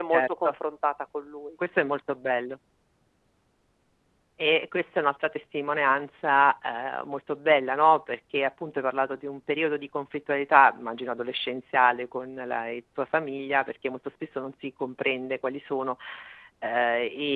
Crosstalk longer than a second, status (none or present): none